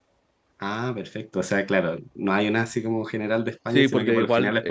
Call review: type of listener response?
taking over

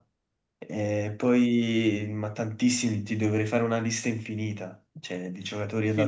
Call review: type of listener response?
taking over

